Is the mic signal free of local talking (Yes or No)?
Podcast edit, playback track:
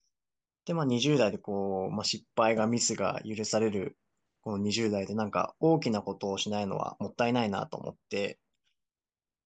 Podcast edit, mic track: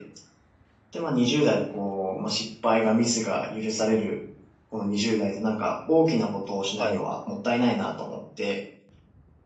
No